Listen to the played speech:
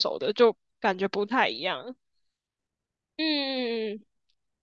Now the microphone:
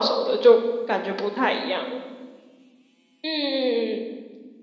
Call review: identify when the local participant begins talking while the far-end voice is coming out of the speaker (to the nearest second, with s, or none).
none